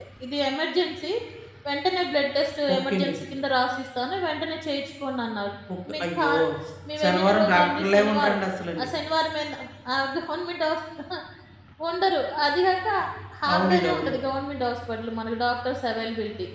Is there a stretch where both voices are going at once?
Yes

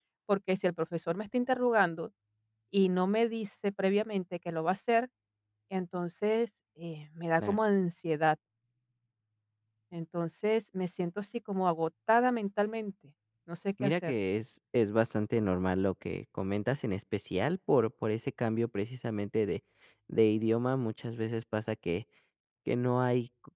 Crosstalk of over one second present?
No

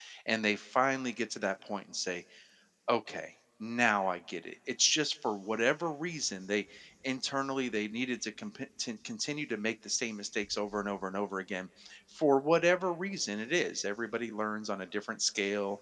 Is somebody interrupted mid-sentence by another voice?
No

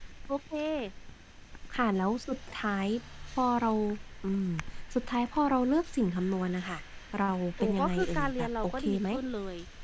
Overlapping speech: Yes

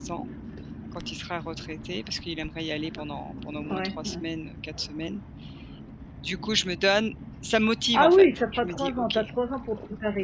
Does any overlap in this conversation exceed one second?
Yes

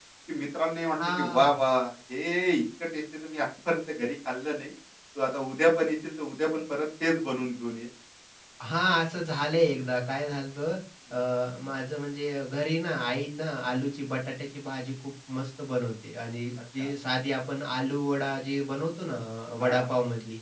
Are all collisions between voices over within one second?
Yes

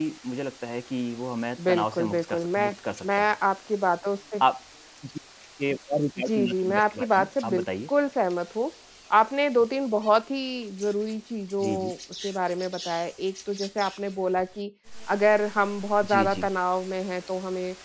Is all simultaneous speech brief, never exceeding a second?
No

